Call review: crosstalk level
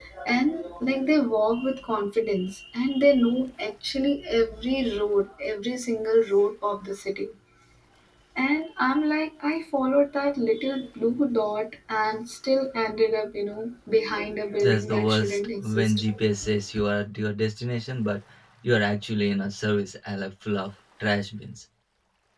present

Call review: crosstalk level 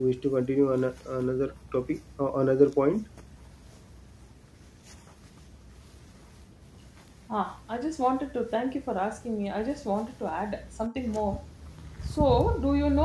none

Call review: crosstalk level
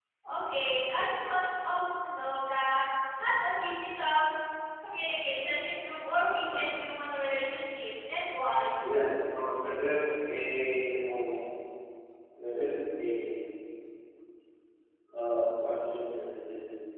none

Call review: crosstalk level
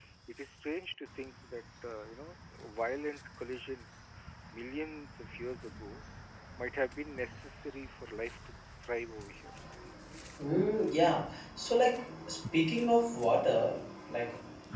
none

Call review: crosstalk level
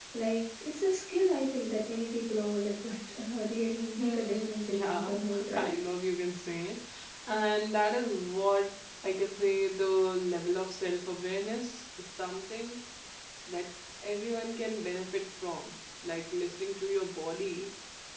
present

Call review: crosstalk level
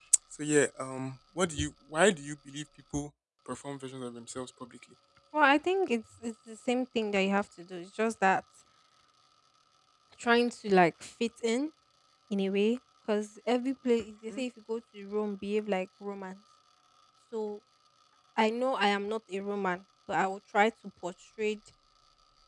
none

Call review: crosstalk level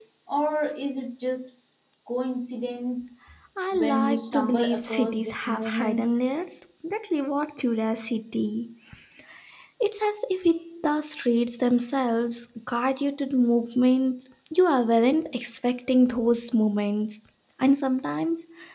present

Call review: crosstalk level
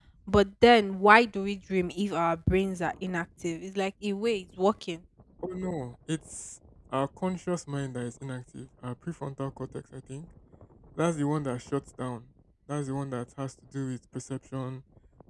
none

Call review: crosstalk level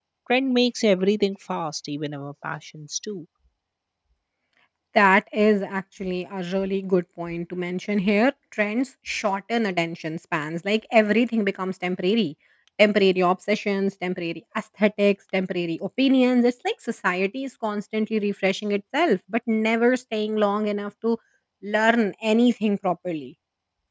none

